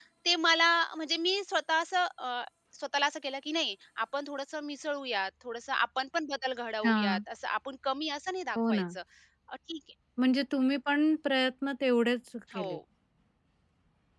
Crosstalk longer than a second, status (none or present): none